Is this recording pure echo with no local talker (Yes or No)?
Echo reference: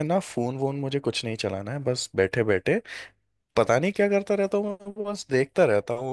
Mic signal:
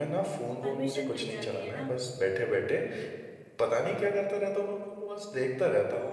No